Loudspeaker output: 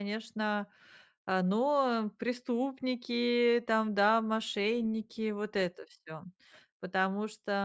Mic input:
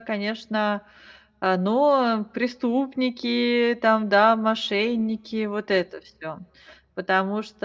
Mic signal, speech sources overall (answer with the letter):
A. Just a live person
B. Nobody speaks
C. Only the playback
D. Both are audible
C